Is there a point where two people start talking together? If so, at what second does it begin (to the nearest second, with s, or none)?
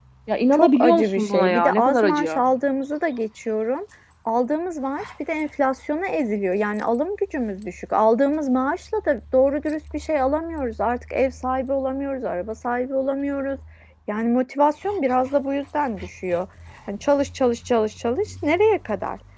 1 s